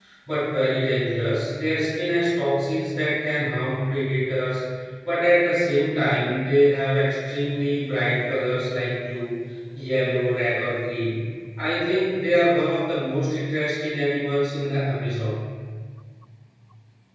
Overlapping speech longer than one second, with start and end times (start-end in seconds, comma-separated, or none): none